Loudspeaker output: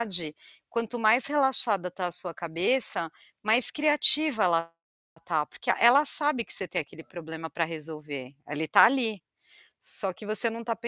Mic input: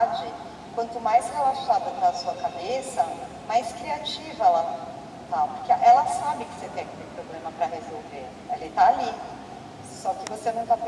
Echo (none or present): present